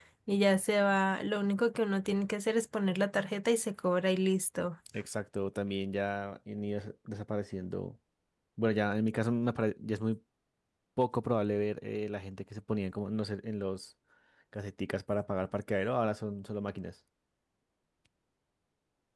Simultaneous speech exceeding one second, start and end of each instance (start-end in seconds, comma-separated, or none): none